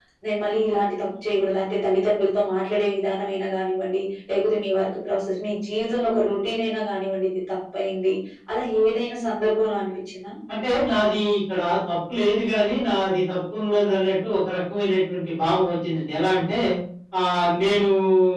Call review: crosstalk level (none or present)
none